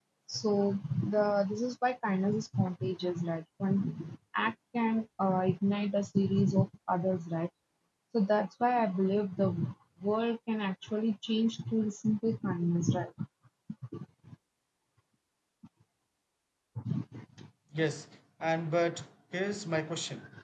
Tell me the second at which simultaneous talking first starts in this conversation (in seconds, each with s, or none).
none